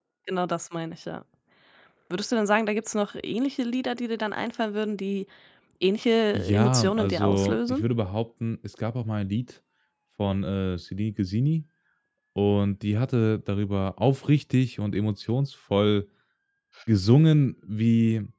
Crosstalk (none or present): present